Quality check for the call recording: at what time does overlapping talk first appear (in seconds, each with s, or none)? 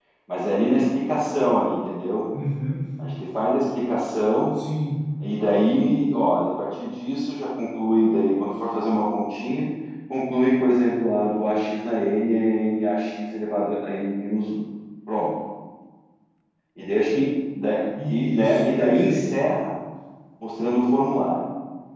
18.0 s